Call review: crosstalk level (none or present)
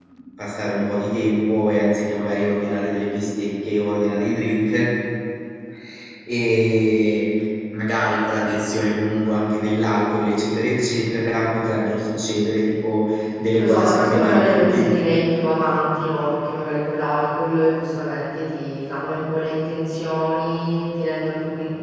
present